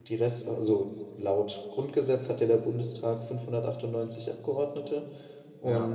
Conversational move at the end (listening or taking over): listening